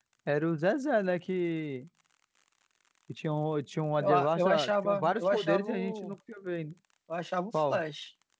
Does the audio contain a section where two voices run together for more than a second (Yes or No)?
Yes